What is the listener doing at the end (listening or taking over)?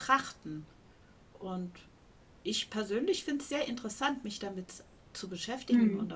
listening